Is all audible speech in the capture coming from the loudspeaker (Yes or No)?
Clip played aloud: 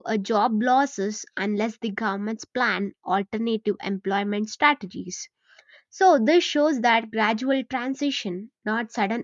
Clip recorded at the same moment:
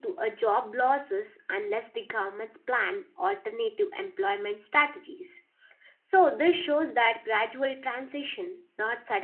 Yes